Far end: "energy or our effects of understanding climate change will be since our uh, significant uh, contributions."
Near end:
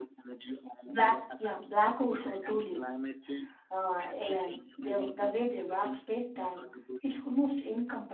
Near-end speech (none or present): present